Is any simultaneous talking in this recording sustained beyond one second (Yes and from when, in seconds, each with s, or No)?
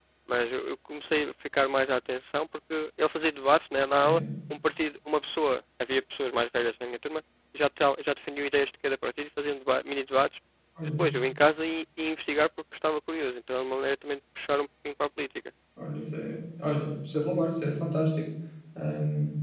No